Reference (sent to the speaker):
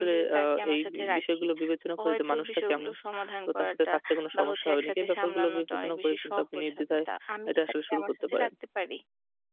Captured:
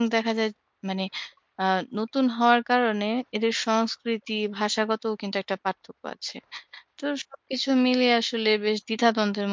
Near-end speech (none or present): present